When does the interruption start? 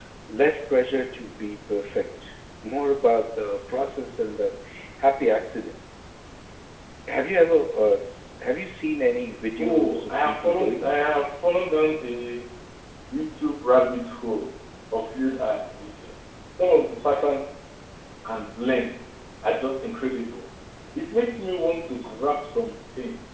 10 s

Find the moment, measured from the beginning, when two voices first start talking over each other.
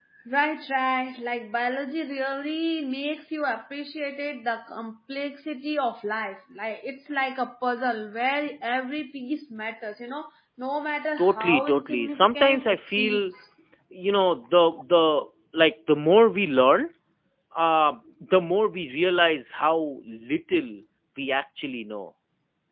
11 s

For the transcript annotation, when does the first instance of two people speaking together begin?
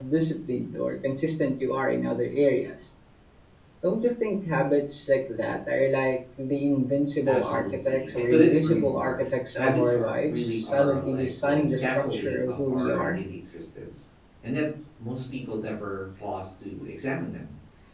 7 s

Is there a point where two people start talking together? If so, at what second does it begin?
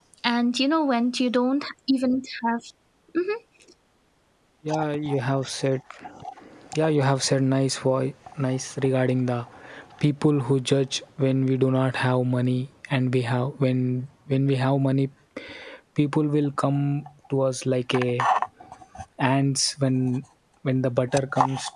none

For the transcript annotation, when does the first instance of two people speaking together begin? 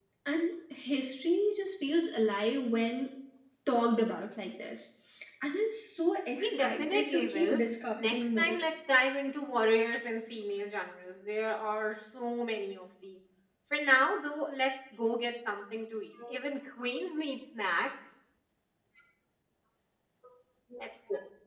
6 s

